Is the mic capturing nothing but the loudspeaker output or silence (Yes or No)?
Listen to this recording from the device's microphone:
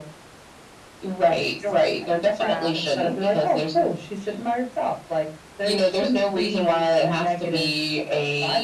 No